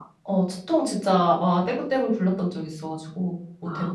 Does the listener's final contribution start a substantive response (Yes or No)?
Yes